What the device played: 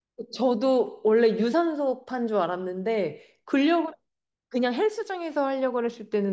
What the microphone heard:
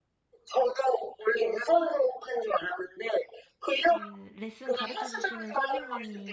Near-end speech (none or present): present